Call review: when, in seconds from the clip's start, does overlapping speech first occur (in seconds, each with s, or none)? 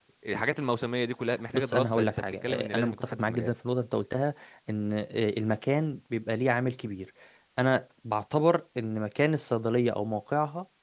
1.5 s